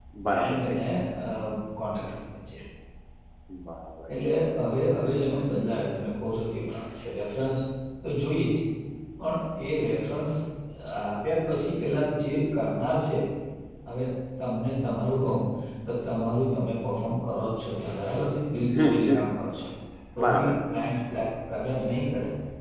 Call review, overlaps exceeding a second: none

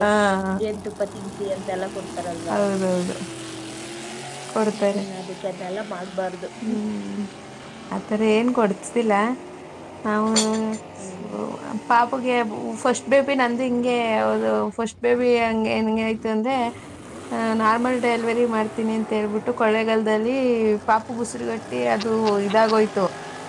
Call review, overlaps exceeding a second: none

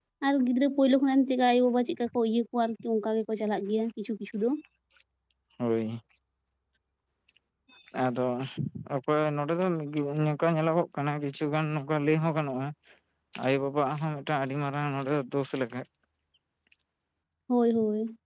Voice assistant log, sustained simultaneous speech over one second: none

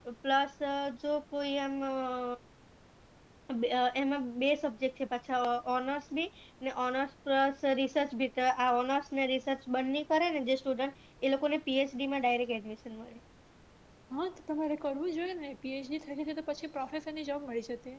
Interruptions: none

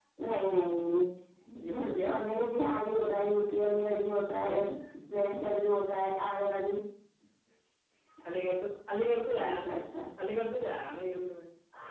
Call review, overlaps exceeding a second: none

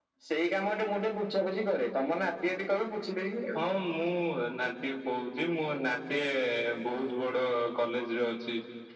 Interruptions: none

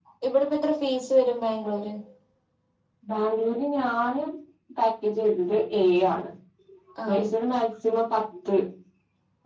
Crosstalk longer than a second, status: none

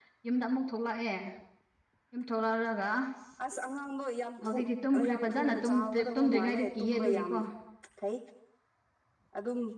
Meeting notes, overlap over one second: present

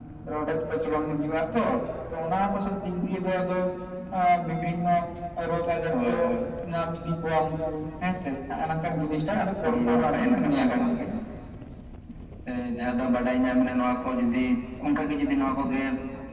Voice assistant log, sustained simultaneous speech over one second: present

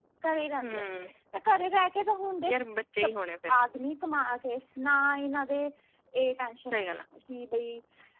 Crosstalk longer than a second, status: none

